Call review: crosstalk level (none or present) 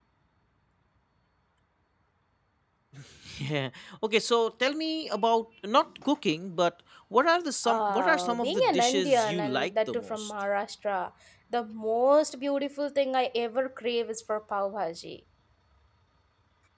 present